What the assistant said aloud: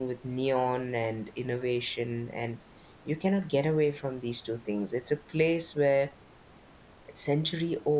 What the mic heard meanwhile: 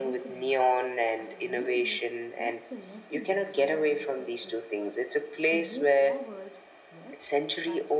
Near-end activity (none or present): present